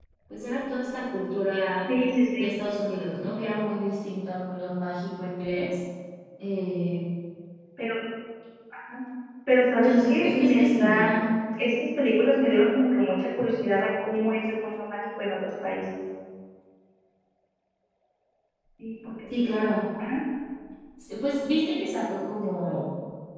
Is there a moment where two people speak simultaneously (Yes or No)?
Yes